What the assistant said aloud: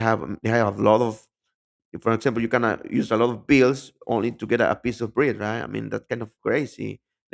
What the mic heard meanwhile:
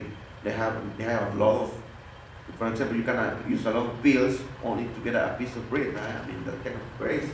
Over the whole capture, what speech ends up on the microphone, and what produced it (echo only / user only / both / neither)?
echo only